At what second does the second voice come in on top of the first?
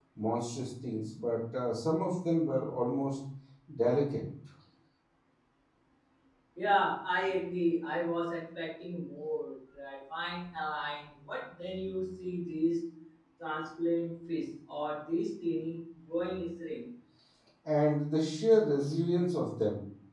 none

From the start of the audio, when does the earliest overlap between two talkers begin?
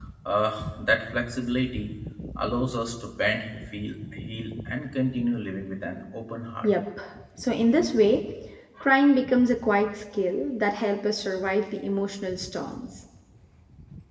none

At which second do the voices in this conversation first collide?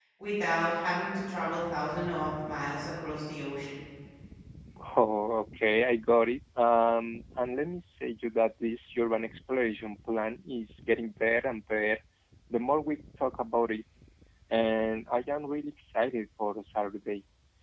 none

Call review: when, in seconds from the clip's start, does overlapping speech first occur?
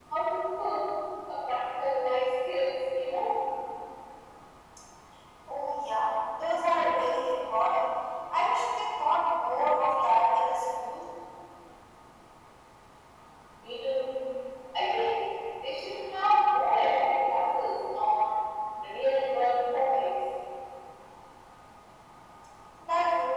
none

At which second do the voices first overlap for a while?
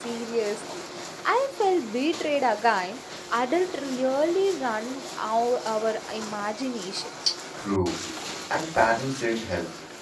none

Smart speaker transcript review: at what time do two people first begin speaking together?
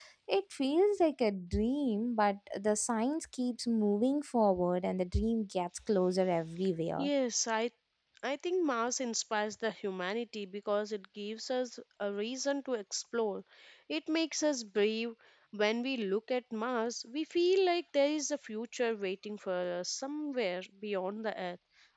none

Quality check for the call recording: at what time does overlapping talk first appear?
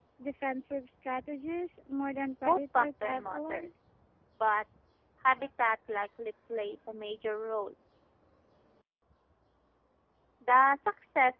2.4 s

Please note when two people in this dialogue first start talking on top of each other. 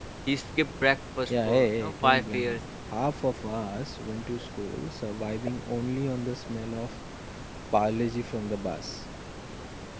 1.3 s

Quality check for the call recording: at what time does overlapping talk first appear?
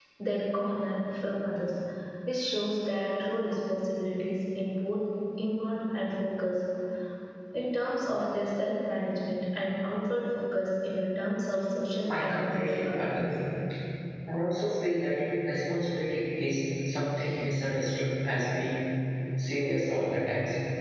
12.1 s

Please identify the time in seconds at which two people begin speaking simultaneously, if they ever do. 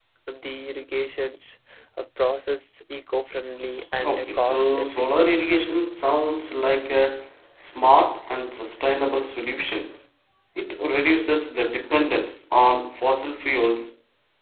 4.0 s

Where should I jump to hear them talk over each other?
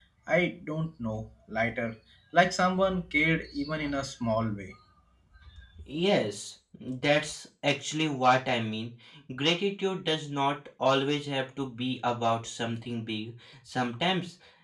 none

